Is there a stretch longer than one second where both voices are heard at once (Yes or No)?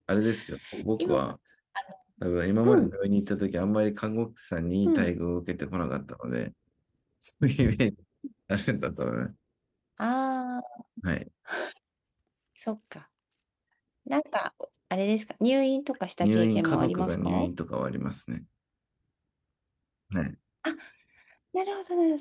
Yes